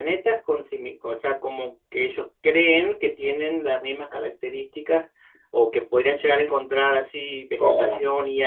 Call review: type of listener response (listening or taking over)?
listening